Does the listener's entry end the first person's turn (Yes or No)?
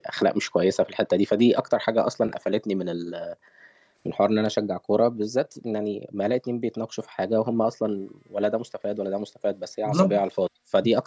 No